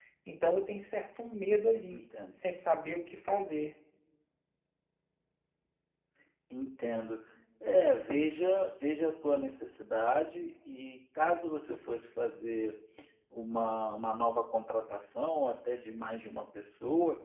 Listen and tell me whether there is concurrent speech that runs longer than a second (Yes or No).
No